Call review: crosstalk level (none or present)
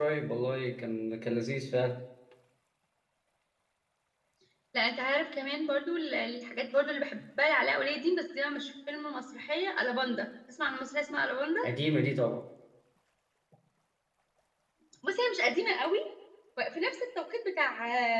none